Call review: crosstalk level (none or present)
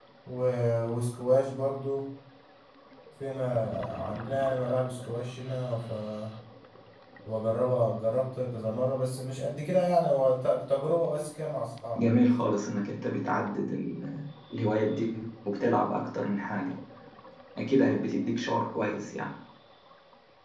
none